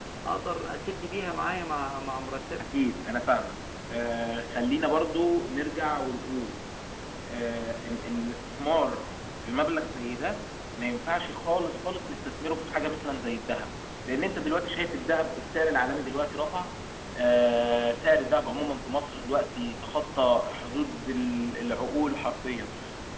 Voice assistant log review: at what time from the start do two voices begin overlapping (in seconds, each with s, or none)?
none